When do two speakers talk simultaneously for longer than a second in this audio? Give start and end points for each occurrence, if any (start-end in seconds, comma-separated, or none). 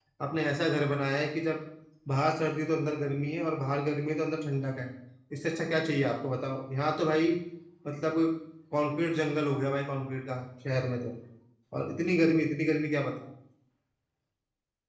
none